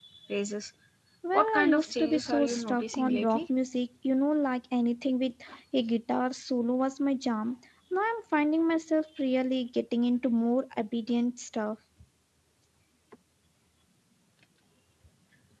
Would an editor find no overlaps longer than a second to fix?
No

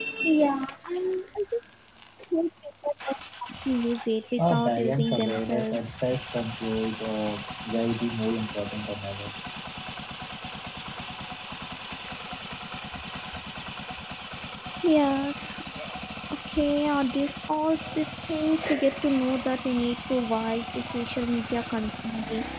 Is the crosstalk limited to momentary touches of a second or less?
No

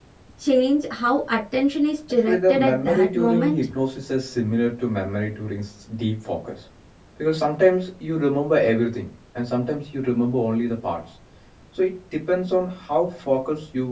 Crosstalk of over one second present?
Yes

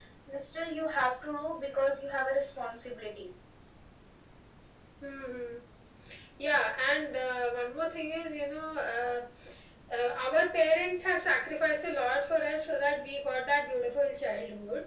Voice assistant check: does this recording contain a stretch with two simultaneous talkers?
No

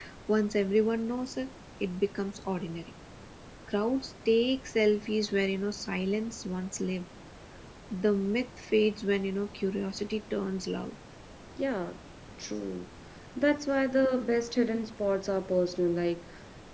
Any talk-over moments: No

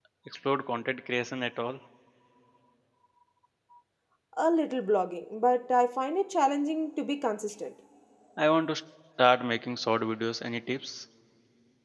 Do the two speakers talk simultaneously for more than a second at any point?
No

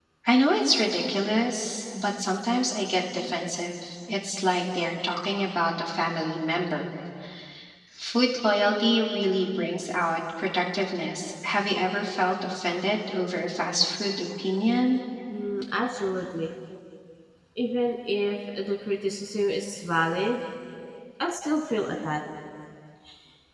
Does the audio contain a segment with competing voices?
No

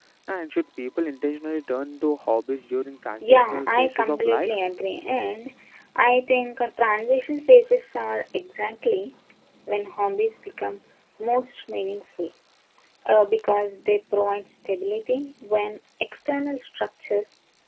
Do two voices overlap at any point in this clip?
Yes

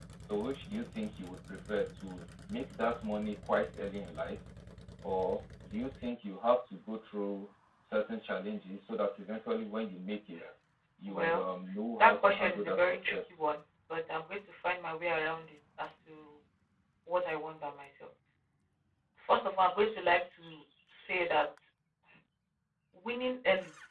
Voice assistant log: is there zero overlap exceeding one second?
No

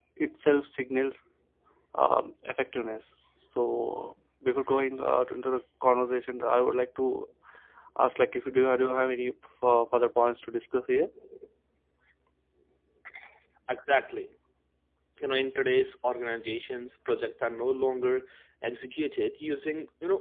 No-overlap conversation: Yes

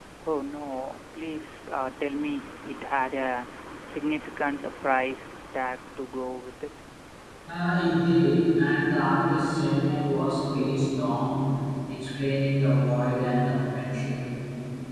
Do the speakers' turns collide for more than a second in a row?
No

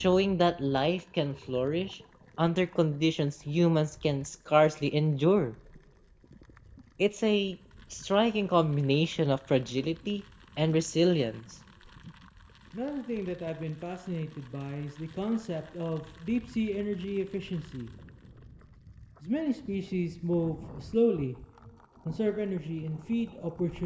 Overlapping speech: No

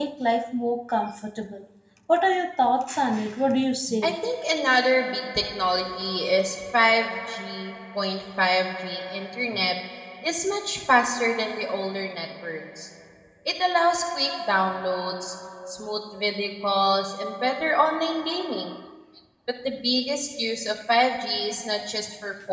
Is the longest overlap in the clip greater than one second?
No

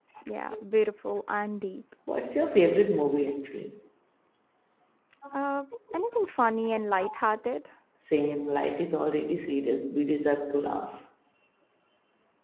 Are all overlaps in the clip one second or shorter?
Yes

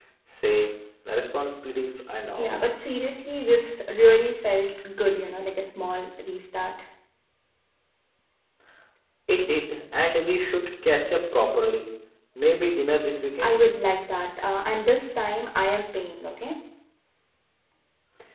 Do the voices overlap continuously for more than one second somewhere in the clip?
No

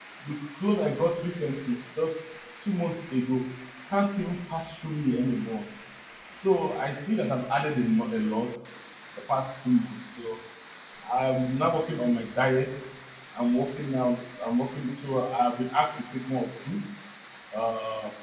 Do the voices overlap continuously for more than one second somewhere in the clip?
No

